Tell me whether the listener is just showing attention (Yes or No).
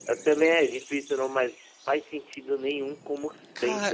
No